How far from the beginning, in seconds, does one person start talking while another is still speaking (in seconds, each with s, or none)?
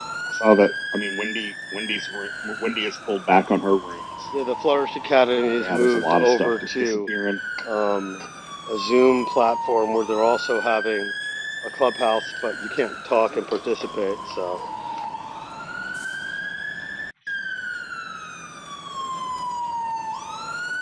5.6 s